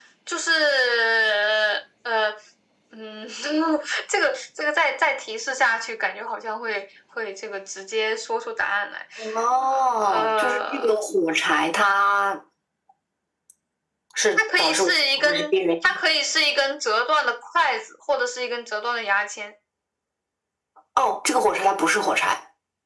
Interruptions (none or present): present